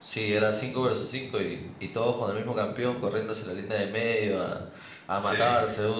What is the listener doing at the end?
listening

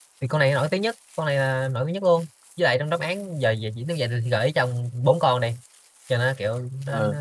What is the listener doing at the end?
taking over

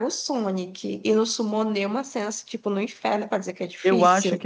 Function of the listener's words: taking over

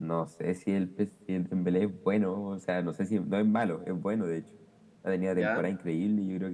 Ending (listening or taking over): listening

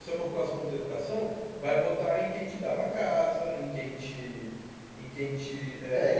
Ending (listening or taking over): taking over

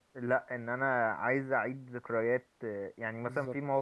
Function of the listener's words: listening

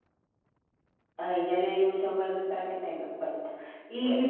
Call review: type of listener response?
listening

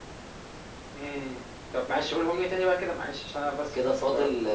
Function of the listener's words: taking over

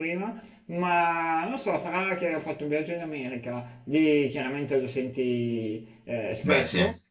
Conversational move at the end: listening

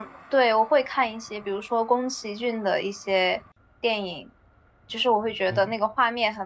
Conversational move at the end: listening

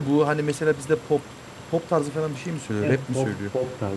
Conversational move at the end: taking over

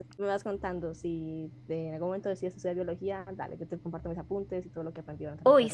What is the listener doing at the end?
taking over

